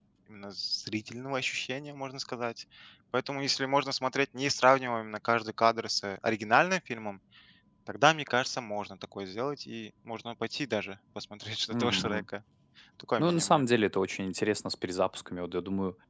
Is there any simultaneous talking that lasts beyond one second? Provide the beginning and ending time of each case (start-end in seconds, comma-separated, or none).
none